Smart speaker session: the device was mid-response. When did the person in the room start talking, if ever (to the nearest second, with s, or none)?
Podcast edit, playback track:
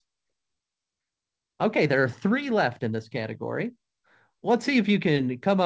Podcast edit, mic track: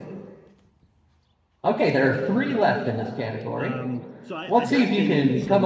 2 s